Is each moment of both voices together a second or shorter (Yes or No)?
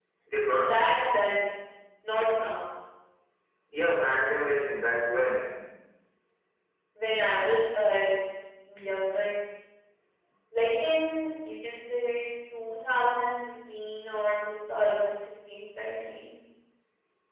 Yes